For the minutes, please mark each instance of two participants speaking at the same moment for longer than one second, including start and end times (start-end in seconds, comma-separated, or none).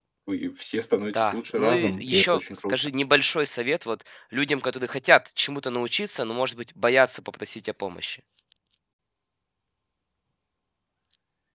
1.1-2.9